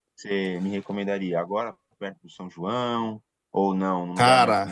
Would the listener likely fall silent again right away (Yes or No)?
Yes